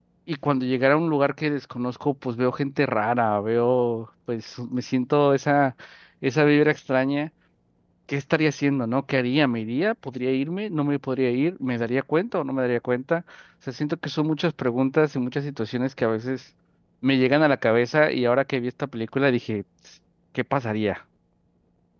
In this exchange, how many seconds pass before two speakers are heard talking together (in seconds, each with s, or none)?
none